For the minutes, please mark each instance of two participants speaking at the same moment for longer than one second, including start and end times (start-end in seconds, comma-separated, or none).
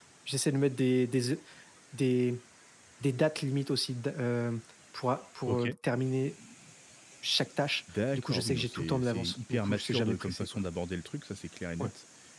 8.1-10.5